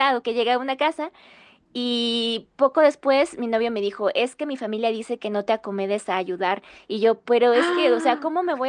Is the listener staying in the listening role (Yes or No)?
Yes